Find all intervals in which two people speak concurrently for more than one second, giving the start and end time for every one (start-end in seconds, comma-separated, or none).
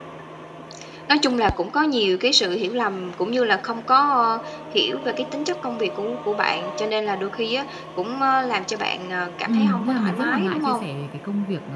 9.4-10.8